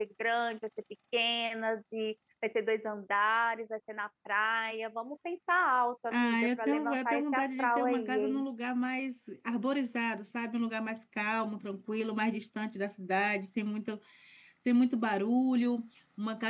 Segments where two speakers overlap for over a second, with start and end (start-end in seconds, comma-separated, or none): 6.1-8.4